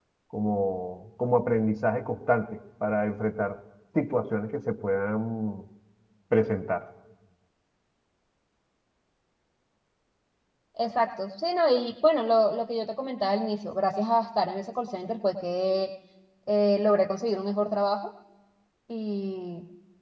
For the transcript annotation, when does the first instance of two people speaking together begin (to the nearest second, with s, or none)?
none